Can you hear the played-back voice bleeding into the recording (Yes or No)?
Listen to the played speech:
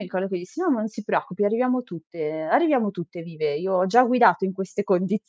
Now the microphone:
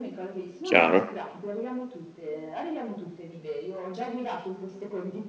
Yes